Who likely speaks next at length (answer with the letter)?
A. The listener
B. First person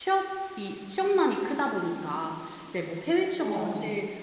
B